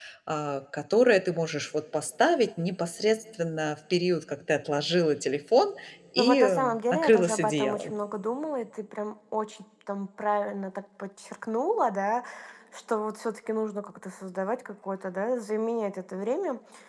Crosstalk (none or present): present